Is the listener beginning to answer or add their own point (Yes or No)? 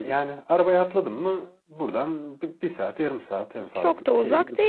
Yes